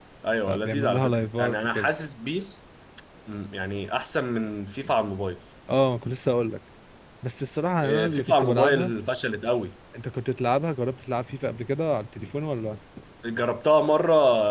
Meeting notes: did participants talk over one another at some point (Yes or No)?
Yes